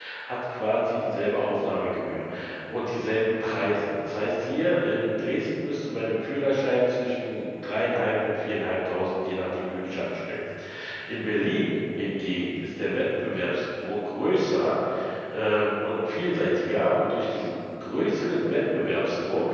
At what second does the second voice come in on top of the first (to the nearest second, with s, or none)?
none